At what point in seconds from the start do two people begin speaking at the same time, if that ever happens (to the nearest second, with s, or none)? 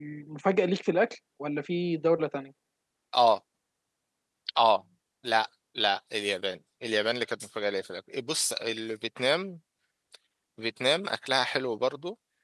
none